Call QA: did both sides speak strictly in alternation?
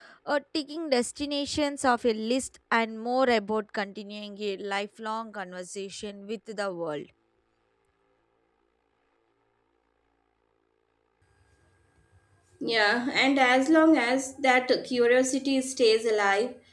Yes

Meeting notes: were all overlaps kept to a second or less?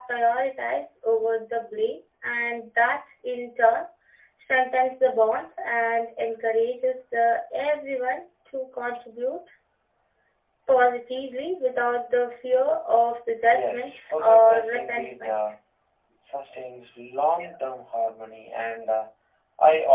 No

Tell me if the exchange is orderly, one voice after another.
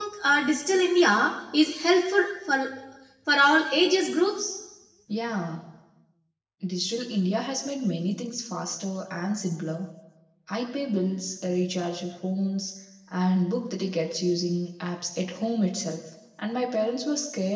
Yes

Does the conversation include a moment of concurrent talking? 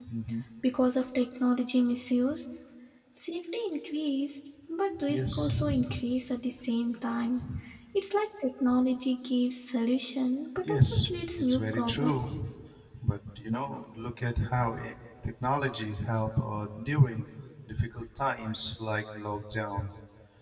Yes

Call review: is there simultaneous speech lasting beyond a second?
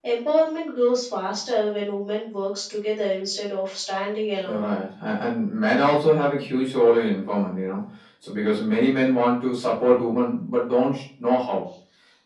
No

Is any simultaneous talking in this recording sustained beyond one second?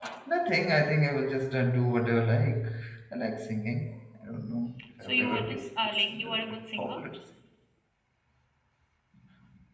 Yes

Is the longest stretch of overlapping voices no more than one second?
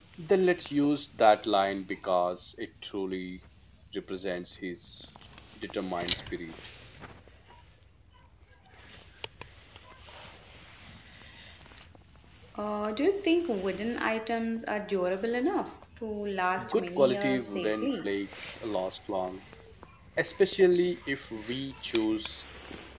No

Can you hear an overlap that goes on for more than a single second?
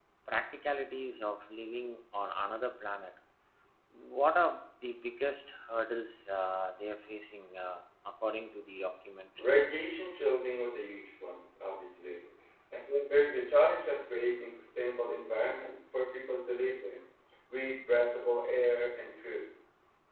No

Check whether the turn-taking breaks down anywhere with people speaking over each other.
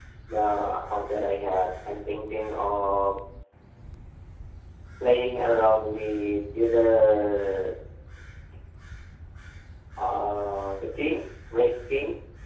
No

